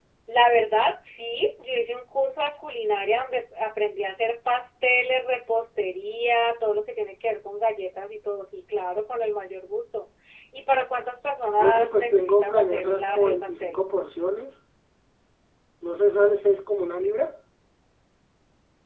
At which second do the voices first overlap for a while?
11.6 s

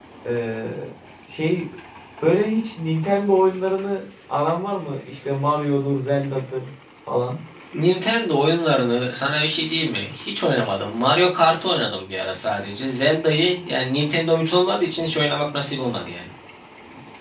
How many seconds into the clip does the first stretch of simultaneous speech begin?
none

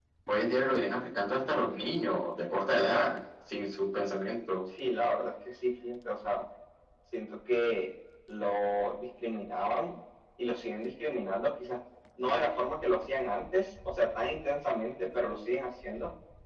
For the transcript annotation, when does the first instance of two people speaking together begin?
none

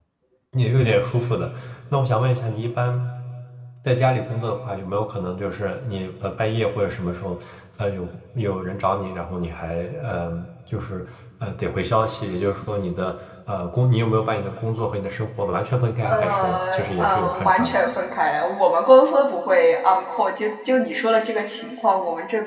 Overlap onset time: 16.0 s

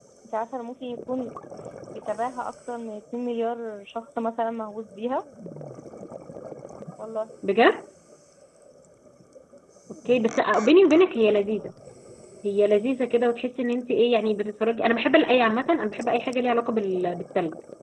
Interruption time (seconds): none

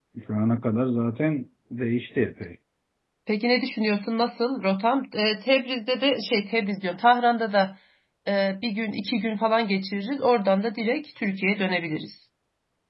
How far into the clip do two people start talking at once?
none

